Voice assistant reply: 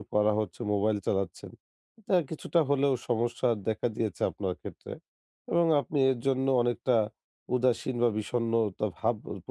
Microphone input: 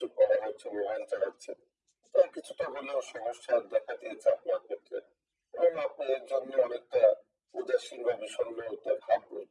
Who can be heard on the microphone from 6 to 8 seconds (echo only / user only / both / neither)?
echo only